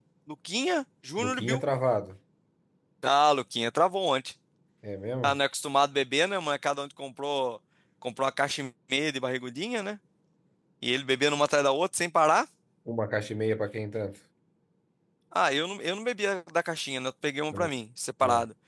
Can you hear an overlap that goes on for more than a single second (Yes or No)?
No